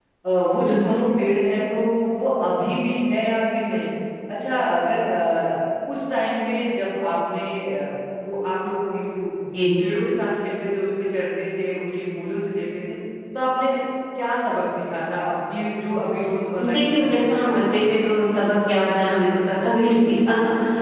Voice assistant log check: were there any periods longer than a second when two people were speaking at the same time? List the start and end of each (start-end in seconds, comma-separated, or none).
16.7-18.0